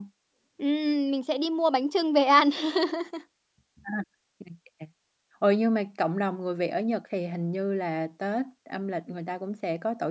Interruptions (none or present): none